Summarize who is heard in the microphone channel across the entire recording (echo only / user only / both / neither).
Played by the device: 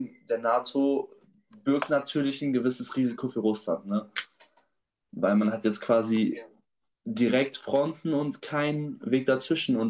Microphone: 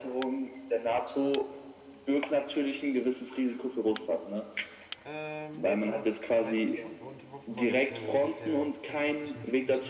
both